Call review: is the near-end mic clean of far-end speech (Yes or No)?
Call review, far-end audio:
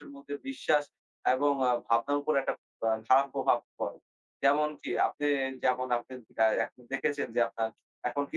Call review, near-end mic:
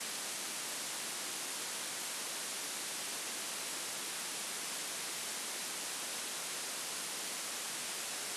Yes